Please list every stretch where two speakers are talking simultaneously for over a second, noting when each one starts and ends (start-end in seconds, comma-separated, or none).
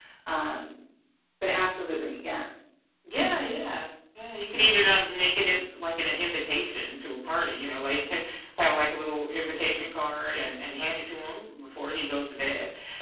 none